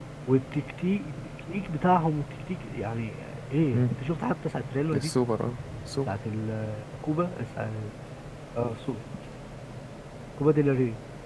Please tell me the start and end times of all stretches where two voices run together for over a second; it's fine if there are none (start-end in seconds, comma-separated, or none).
none